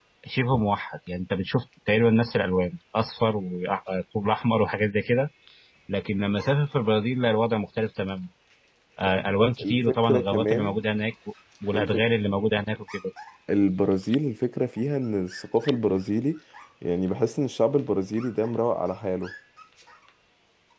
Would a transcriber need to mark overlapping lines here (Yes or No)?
Yes